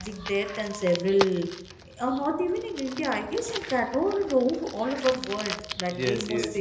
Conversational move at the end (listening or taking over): taking over